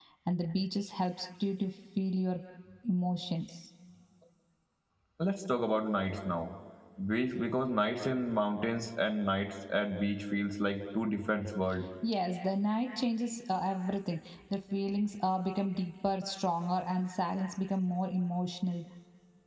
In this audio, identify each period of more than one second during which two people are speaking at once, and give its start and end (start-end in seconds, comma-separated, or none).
none